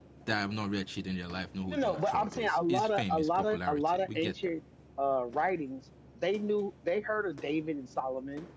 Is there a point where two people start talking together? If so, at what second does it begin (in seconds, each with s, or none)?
1.7 s